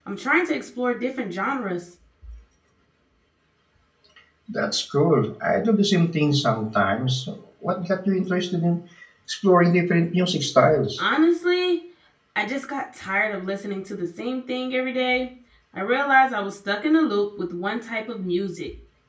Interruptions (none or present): none